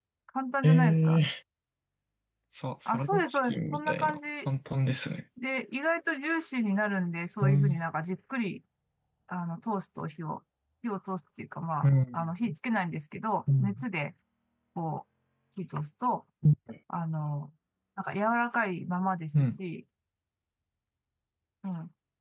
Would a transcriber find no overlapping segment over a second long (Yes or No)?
No